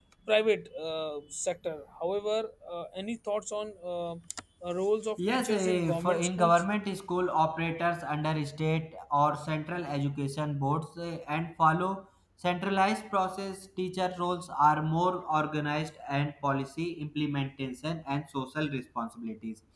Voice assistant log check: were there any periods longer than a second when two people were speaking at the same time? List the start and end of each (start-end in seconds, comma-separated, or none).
5.3-6.6